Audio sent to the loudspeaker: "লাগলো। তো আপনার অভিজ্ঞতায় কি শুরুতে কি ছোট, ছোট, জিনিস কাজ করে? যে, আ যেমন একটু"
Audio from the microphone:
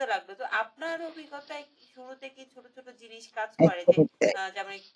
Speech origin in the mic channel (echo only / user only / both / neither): both